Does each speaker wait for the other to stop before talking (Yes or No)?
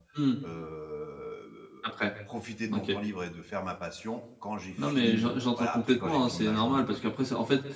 No